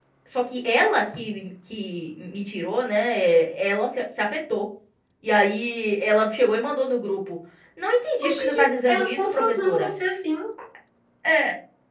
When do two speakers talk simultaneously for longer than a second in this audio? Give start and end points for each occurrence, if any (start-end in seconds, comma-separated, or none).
8.2-9.9